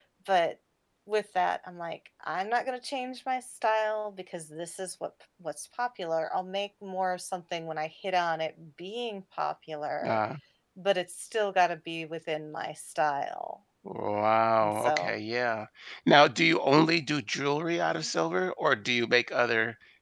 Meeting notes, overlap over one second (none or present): none